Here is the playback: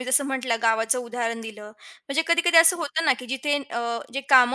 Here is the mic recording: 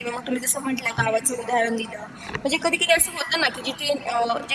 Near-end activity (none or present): none